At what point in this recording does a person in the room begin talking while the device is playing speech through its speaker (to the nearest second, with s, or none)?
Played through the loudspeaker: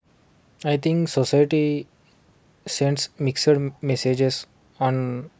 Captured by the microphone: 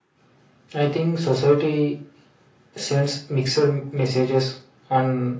none